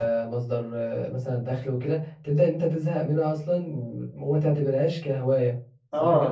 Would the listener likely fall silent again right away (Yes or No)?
No